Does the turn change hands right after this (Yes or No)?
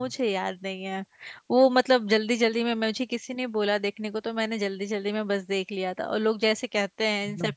No